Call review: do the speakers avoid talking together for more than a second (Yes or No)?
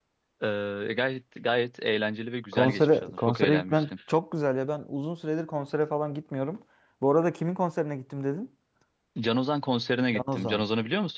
No